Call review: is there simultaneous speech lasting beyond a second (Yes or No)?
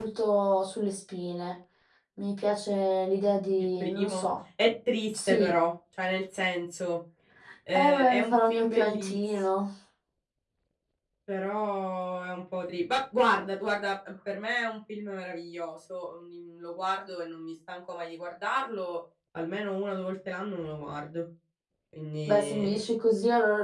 Yes